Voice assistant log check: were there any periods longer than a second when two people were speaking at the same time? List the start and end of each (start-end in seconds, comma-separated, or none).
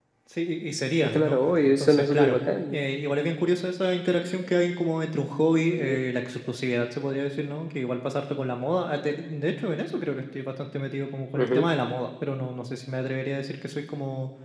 1.0-2.8